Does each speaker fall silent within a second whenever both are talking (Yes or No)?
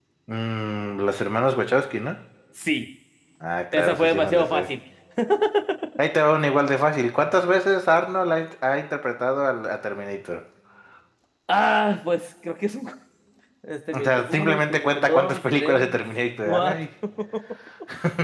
No